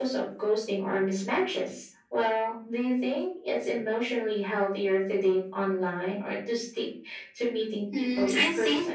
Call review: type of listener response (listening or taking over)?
taking over